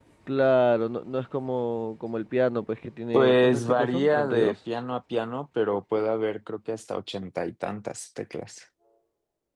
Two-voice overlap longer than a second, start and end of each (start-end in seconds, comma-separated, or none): 3.1-4.5